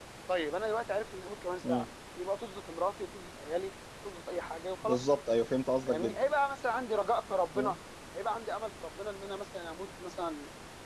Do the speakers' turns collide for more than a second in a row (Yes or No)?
No